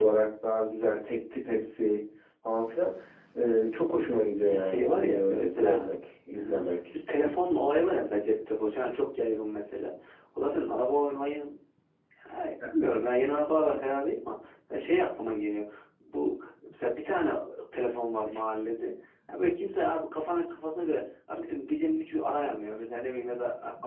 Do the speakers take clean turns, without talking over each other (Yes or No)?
No